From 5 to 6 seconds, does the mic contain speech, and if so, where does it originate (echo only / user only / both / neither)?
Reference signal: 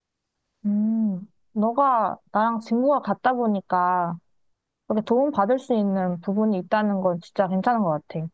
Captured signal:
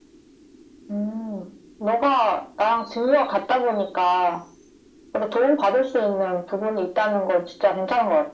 echo only